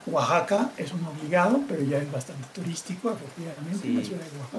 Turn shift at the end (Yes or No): No